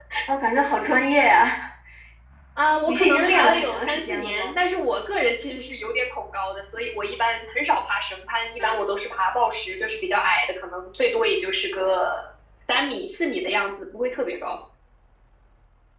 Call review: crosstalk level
present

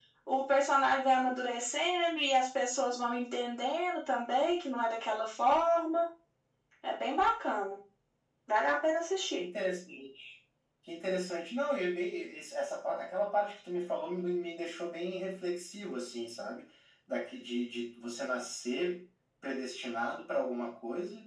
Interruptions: none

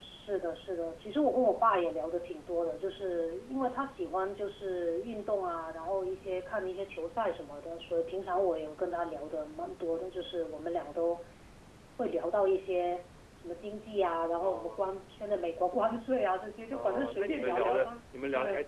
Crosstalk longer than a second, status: present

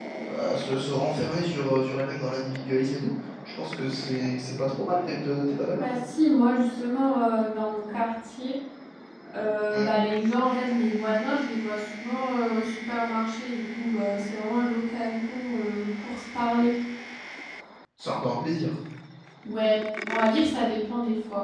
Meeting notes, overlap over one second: none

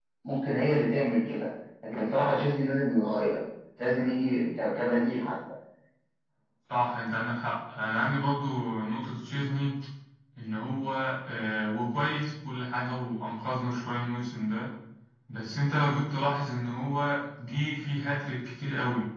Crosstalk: none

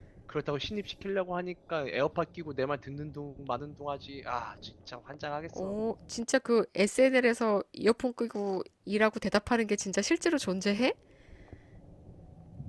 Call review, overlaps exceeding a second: none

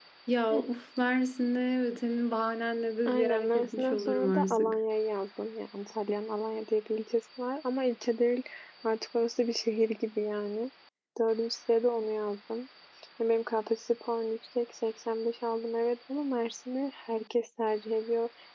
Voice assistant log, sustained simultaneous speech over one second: present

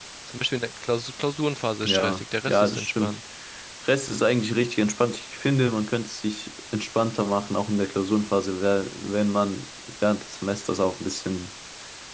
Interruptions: present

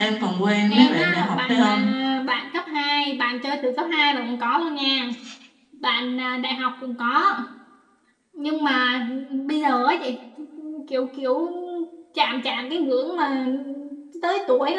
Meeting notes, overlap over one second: present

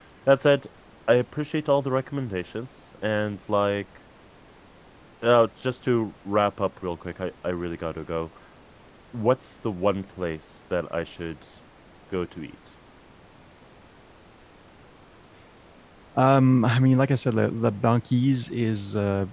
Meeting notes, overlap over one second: none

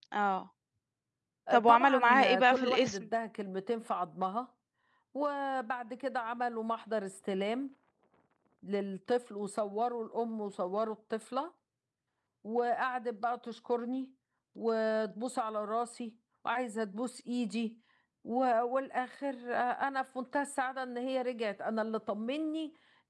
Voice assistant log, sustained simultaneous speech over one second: present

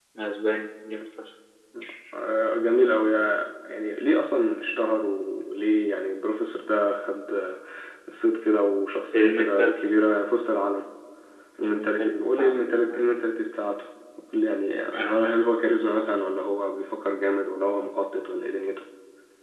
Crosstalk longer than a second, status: present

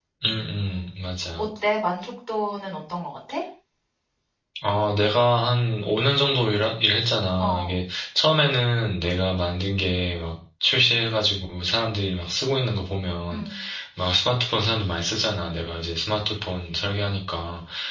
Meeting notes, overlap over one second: none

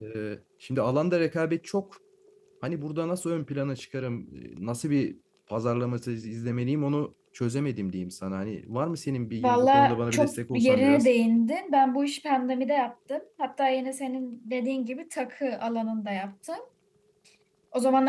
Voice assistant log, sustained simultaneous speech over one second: present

